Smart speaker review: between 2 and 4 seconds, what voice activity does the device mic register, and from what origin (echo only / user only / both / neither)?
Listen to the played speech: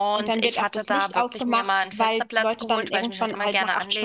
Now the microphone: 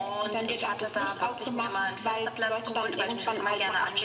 echo only